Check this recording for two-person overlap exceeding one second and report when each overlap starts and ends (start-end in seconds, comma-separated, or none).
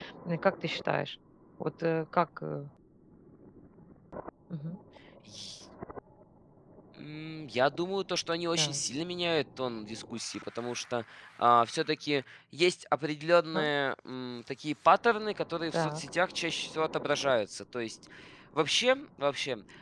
none